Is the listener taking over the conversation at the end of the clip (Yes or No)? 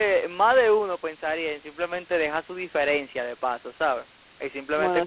No